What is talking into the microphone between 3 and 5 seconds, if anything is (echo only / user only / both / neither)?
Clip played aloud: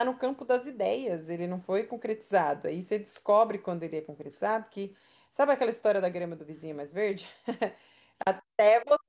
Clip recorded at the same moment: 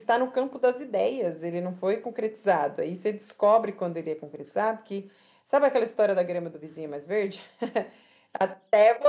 echo only